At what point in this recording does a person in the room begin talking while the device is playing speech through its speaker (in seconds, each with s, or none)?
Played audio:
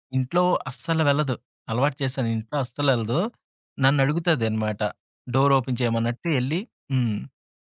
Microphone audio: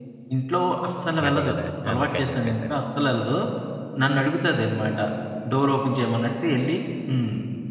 1.3 s